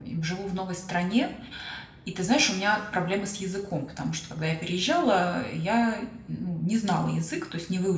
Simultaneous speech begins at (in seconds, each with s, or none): none